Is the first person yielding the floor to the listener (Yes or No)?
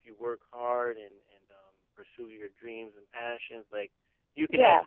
No